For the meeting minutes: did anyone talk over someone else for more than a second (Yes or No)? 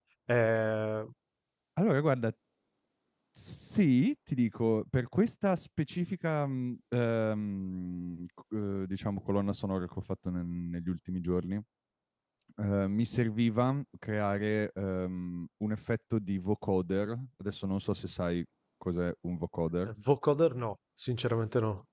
No